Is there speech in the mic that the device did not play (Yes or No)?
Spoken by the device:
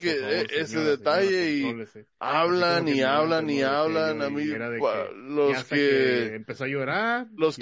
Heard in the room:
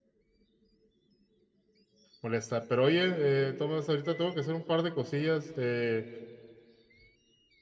Yes